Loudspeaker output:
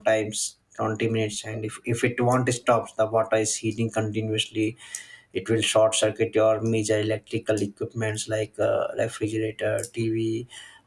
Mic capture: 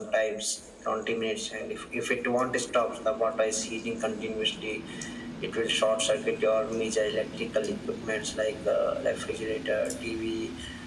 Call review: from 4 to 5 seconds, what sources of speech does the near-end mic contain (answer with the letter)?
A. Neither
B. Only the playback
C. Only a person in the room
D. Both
B